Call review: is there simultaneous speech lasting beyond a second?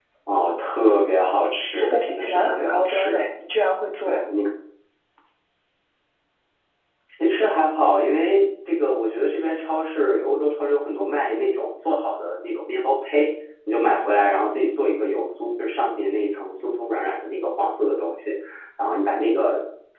Yes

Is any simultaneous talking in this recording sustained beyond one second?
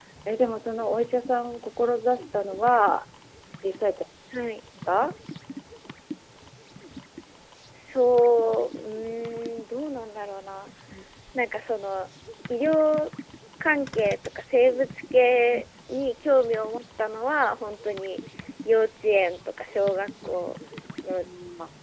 No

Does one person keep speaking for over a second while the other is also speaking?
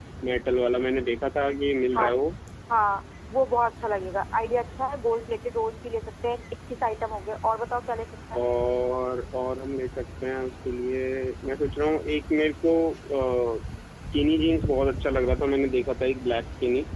No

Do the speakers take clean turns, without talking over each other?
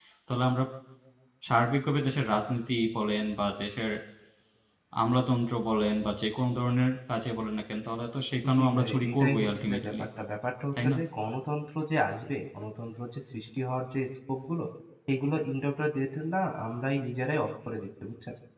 No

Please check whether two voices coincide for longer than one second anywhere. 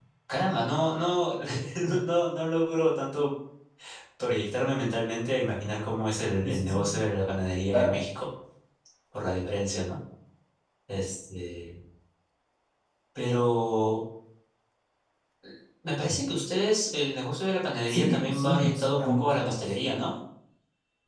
Yes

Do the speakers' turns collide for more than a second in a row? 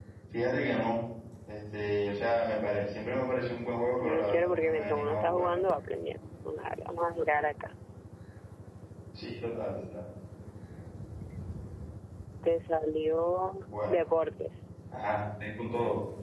Yes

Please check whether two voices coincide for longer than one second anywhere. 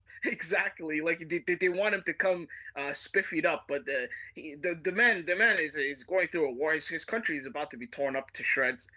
No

